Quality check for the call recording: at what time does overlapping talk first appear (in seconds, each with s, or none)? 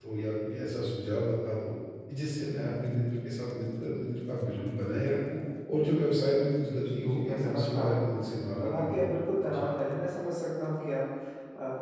6.7 s